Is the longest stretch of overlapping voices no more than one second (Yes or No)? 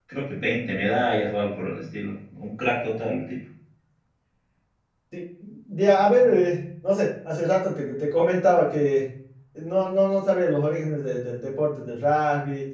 Yes